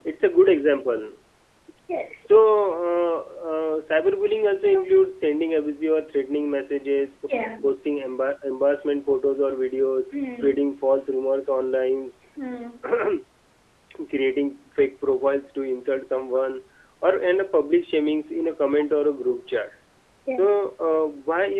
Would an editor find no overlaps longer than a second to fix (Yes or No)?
Yes